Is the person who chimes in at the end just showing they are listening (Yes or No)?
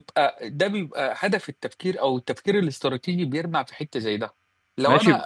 No